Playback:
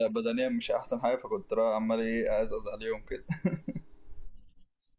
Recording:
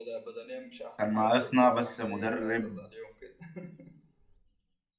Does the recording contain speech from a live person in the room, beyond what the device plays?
Yes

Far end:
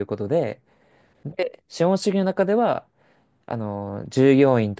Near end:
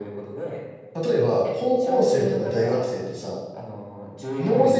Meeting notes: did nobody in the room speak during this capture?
No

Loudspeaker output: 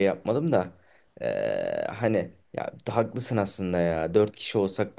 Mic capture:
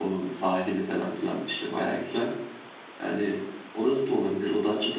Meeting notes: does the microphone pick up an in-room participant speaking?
Yes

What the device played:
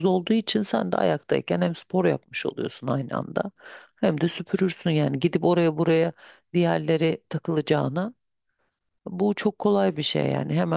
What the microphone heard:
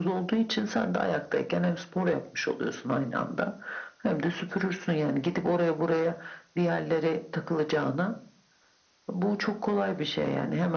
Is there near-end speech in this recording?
No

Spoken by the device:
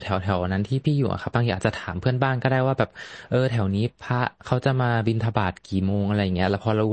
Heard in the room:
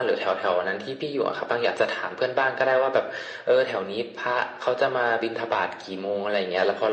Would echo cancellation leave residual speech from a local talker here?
No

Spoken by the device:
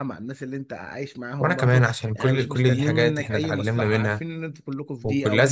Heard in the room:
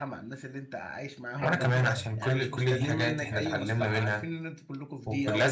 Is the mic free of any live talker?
No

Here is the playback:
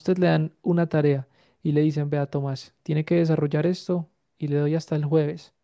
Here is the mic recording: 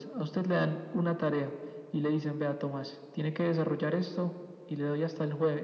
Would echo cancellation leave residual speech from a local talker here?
No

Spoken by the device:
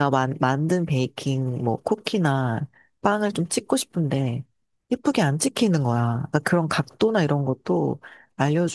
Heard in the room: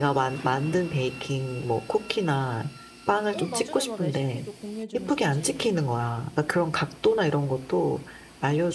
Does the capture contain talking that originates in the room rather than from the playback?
Yes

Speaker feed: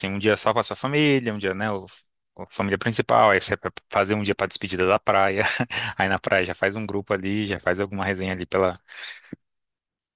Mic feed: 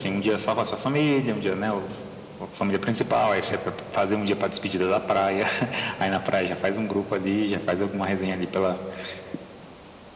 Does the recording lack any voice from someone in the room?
Yes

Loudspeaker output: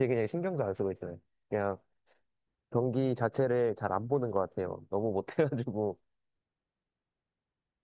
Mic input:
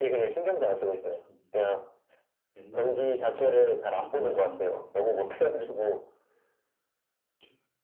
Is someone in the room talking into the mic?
Yes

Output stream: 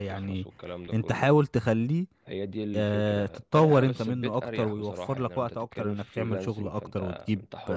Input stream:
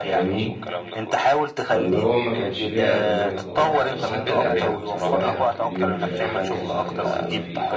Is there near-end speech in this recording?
Yes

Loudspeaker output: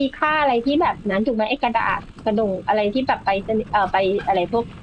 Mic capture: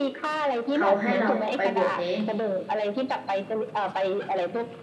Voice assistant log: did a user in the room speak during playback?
Yes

